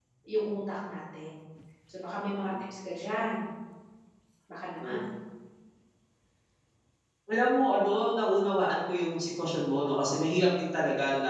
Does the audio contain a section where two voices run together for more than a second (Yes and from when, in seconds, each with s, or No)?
No